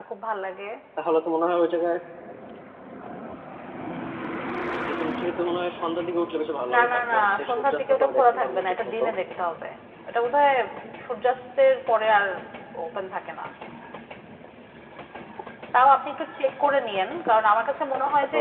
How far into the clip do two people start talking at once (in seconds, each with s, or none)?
6.7 s